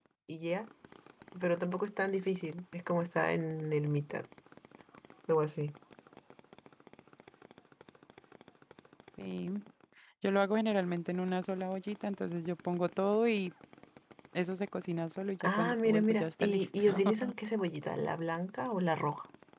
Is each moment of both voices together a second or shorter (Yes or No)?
No